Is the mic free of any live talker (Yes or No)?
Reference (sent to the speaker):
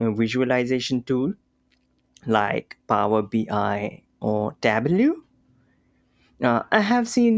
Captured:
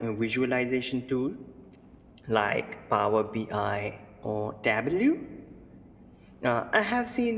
Yes